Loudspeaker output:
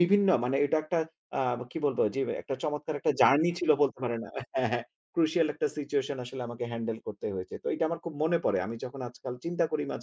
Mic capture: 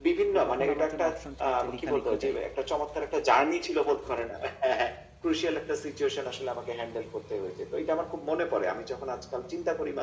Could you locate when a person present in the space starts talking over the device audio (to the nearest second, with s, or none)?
0 s